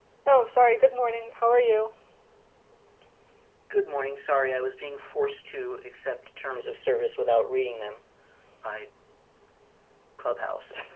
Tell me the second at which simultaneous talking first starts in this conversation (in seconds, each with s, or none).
none